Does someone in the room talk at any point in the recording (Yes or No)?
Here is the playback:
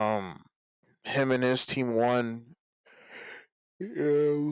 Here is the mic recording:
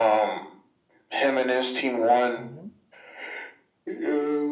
Yes